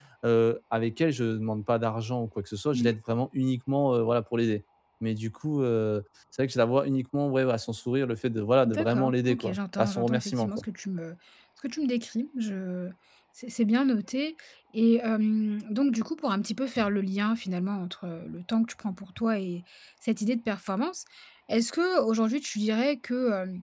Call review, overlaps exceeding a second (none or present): present